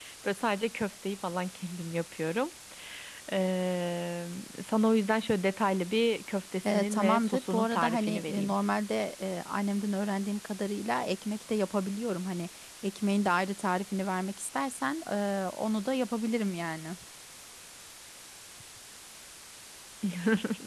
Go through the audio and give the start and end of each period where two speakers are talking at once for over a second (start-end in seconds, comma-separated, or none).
6.6-8.5